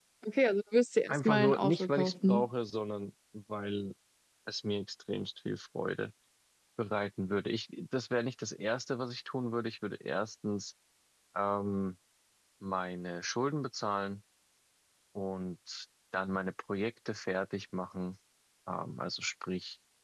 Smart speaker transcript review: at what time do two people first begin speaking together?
1 s

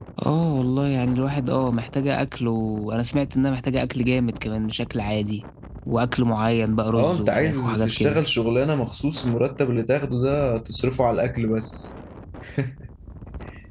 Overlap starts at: 7 s

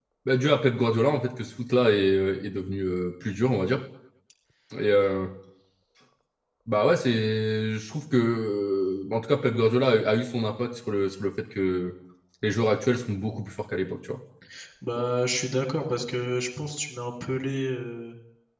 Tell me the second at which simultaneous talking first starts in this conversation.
none

